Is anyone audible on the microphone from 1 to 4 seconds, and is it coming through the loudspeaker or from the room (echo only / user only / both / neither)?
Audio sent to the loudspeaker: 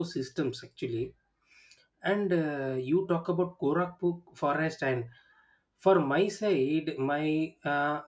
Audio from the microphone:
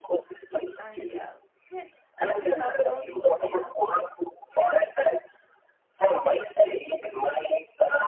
both